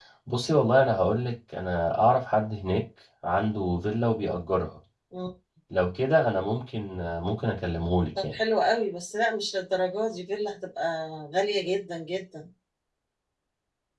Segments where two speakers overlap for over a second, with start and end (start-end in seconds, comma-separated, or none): none